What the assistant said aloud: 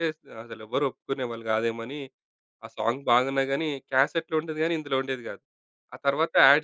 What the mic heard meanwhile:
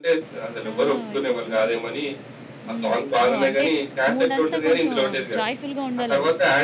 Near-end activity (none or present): present